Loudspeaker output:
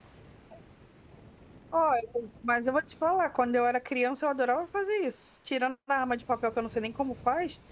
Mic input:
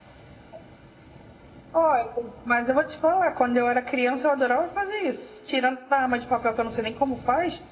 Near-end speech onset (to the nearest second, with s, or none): none